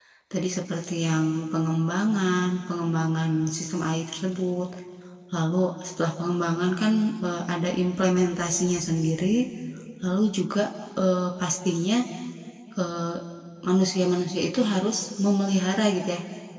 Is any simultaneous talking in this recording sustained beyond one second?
No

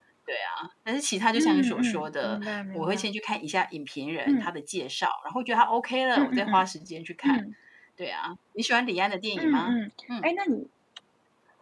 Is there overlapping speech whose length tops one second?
Yes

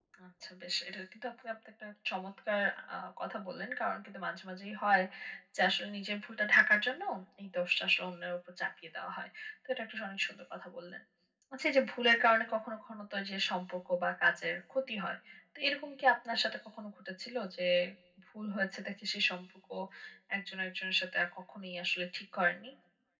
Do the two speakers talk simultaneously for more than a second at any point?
No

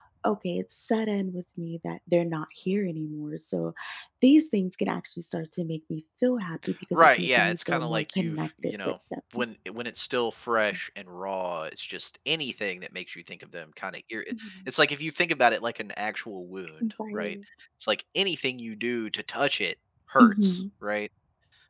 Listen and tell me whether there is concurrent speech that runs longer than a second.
Yes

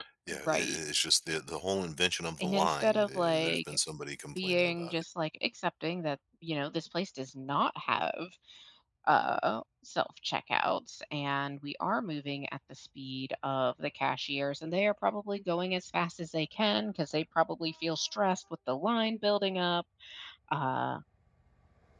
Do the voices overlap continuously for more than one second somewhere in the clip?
Yes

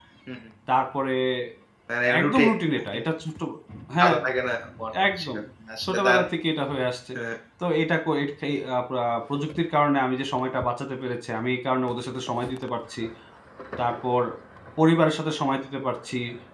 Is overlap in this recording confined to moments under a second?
Yes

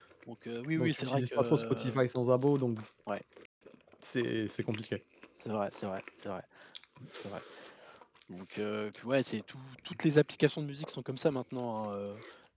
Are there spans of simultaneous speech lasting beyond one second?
Yes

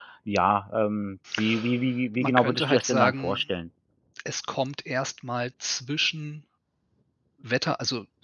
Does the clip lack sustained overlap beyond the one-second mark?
No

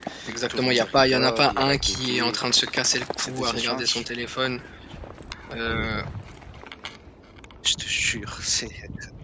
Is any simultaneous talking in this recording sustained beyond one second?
Yes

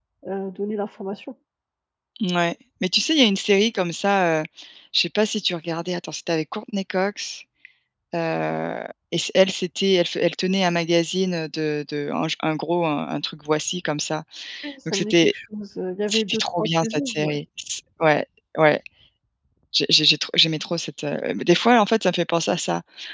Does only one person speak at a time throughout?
No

